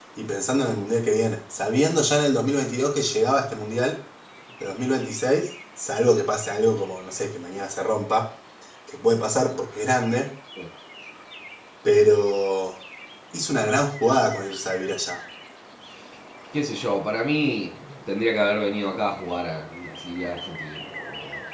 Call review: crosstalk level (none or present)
none